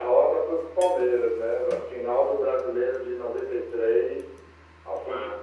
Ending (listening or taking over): listening